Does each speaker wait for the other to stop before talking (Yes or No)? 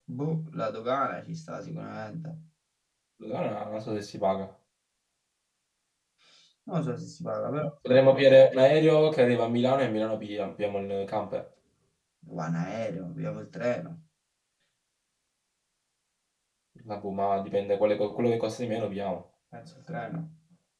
Yes